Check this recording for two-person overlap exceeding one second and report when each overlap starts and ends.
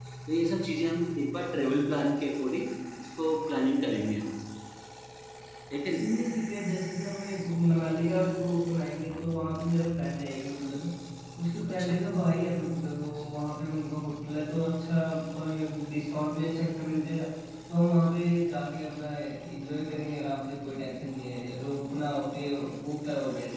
none

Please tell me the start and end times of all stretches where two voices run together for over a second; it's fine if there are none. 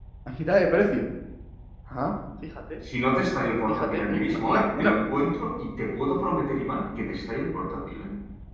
3.7-4.9

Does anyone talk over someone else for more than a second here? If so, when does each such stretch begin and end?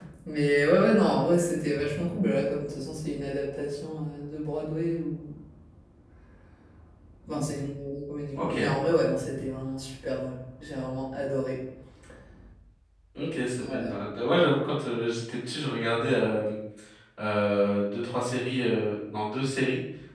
none

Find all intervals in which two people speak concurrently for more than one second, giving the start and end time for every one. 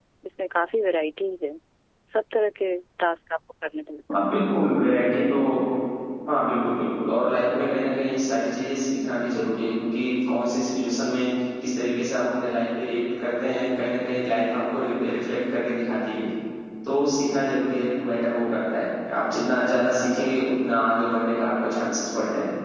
none

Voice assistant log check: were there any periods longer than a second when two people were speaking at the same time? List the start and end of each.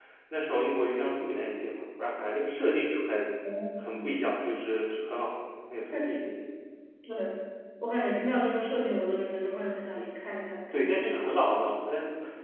none

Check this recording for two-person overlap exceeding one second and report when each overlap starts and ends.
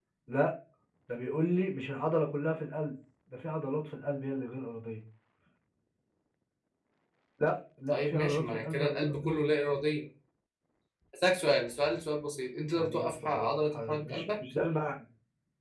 7.9-9.3, 12.8-14.4

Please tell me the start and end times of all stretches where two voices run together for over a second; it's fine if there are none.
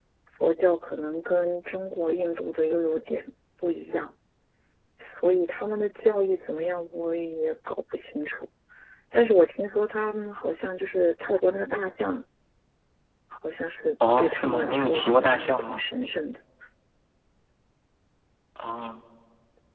14.2-15.8

